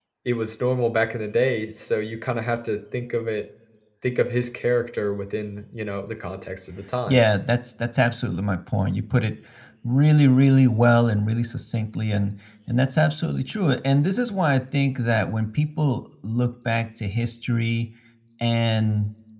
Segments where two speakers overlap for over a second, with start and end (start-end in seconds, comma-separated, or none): none